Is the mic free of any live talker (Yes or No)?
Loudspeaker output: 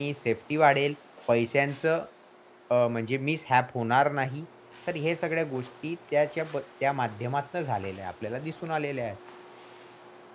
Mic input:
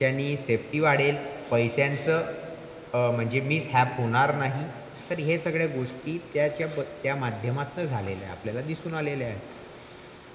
Yes